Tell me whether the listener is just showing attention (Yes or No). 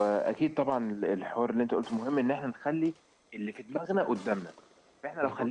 Yes